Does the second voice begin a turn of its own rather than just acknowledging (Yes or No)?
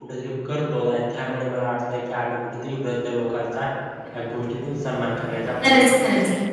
Yes